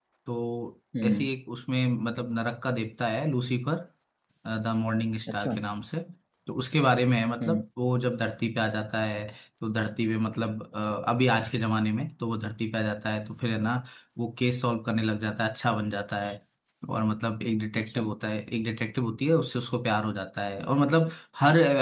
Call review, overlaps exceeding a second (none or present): none